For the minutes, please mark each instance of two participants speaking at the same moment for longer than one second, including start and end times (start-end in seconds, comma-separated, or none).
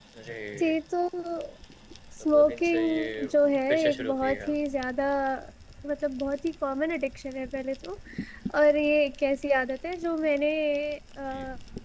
2.3-4.5